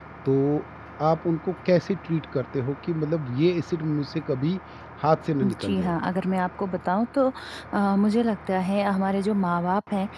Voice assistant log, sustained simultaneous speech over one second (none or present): none